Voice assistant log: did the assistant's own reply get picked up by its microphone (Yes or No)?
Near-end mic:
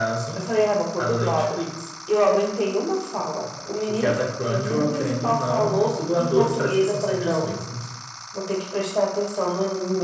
Yes